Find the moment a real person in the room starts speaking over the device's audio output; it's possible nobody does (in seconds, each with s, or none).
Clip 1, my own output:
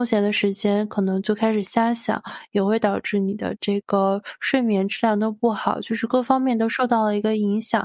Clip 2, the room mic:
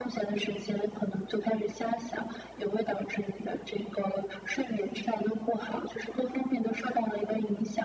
none